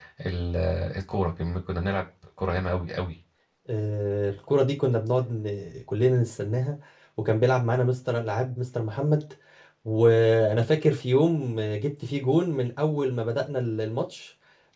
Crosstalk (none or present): none